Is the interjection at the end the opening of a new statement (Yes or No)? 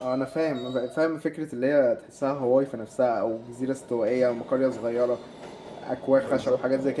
No